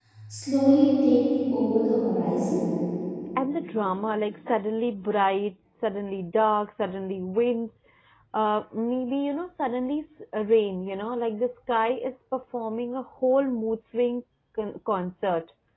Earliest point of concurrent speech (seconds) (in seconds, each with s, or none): none